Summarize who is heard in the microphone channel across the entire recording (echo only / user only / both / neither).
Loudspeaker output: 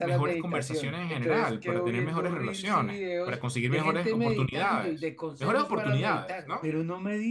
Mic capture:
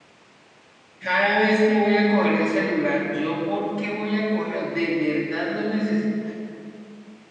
user only